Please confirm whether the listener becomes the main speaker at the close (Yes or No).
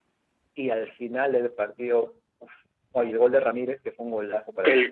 Yes